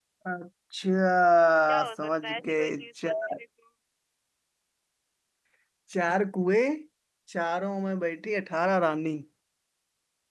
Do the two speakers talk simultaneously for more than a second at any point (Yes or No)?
Yes